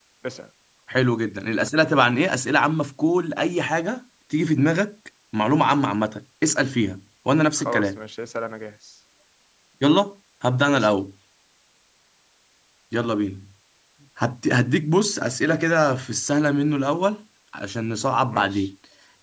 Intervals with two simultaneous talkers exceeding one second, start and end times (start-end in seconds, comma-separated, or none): none